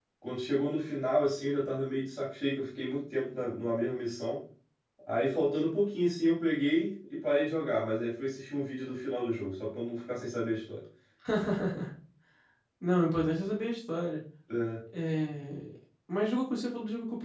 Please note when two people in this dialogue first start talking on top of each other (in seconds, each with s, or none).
none